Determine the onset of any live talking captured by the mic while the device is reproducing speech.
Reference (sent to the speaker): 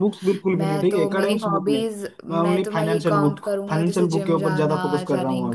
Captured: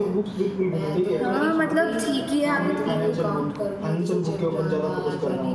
1 s

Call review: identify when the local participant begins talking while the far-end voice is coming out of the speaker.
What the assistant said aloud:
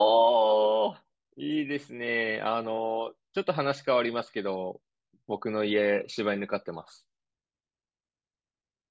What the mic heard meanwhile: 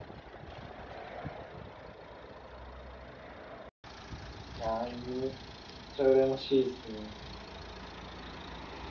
5 s

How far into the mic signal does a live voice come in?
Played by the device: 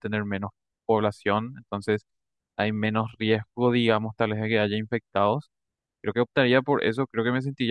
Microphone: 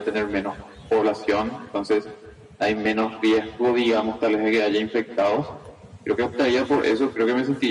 none

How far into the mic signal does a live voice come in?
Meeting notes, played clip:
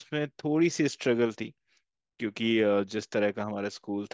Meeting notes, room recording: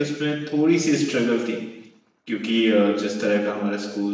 none

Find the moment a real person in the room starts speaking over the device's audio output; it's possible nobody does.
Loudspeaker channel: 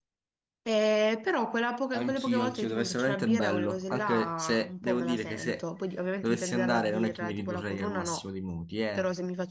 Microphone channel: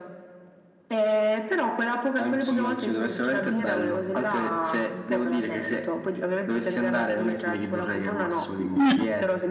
9 s

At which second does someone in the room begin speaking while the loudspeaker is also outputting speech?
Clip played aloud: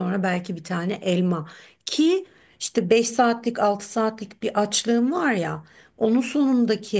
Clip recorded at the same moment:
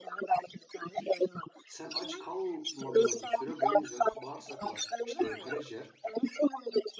2 s

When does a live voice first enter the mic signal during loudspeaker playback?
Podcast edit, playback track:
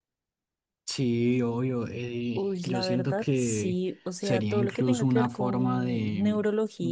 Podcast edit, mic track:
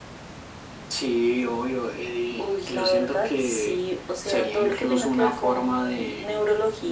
none

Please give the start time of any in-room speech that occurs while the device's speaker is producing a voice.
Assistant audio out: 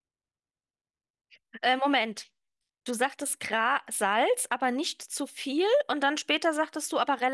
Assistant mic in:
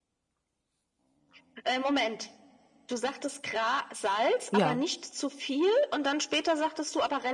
5 s

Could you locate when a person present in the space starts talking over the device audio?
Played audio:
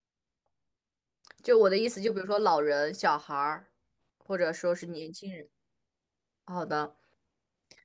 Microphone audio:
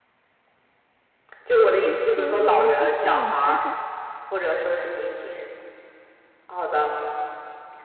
2 s

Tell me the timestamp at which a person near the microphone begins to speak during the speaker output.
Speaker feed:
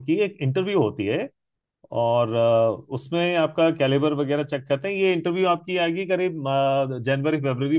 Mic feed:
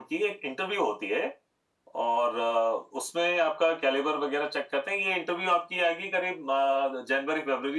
none

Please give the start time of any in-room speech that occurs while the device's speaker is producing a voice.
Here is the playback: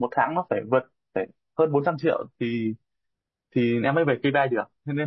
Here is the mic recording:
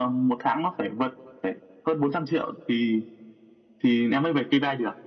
none

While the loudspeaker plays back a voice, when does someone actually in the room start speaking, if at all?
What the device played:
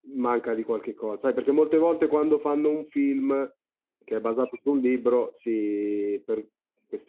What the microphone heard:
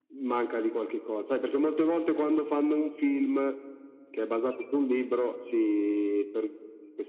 none

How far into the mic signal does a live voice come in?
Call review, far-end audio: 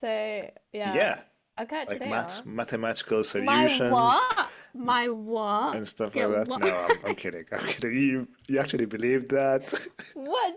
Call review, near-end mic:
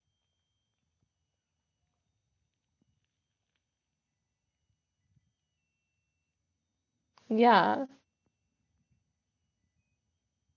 7 s

